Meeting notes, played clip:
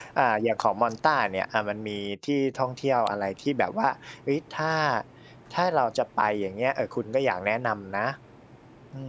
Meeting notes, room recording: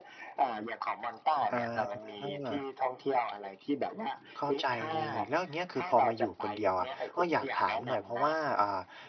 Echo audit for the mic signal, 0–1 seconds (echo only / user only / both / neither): echo only